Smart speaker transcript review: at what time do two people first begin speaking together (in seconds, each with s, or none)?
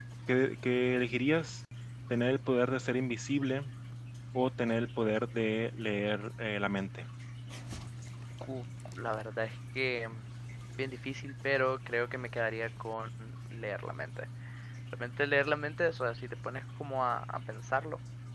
none